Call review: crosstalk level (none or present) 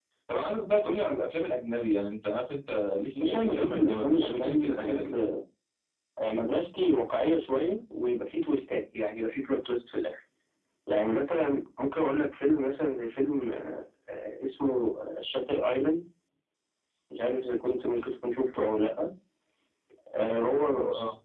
present